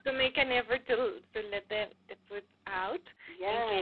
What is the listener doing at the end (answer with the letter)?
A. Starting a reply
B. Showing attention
A